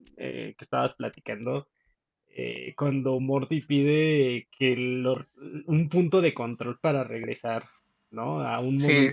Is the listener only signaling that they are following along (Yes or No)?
Yes